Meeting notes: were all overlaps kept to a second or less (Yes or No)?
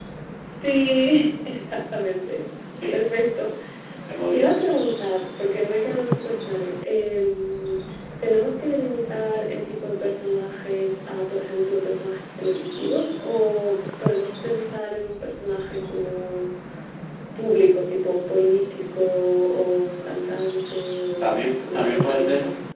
No